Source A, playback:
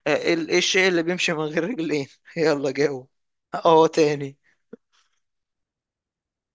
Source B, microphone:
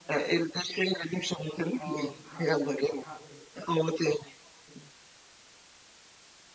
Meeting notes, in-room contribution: present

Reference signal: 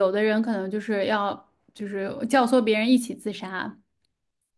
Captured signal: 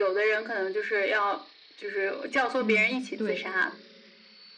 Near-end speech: present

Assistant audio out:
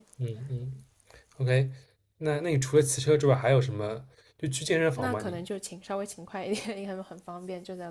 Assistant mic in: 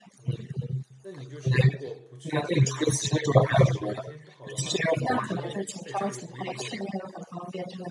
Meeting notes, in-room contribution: present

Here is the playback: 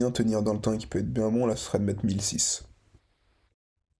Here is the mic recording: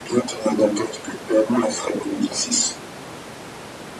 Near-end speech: none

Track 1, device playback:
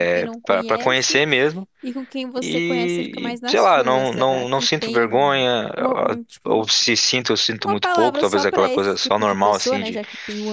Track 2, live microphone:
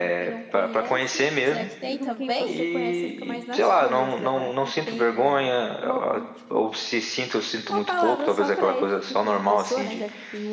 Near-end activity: present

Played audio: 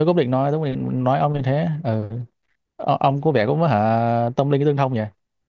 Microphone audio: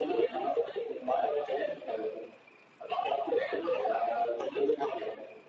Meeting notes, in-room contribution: none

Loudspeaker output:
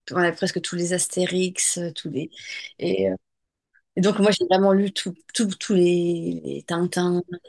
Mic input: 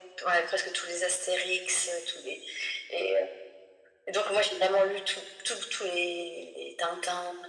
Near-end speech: none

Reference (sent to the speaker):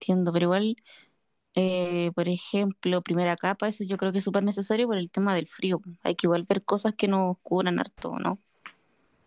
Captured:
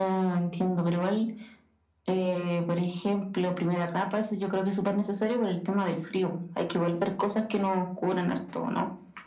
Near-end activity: none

